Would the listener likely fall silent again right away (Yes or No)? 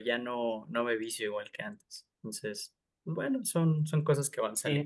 No